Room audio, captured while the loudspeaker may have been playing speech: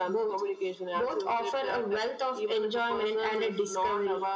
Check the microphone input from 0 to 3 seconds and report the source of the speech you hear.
echo only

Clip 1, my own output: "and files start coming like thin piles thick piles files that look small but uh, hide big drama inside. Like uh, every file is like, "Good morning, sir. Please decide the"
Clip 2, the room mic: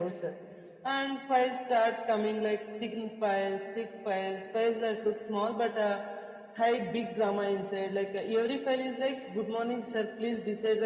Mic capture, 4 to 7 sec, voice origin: echo only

